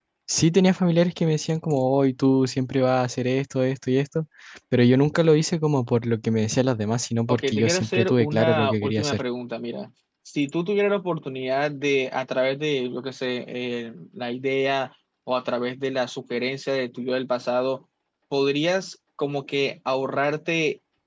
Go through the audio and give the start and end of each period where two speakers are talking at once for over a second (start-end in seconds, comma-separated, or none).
7.3-9.2